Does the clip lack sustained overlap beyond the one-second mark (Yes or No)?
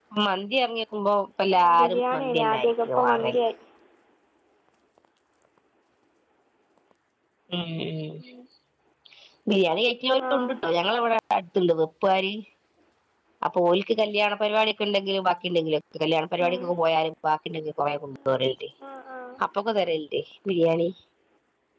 No